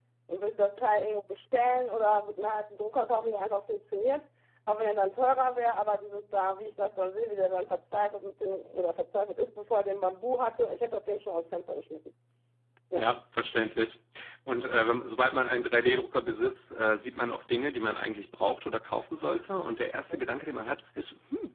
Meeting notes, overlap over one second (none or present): none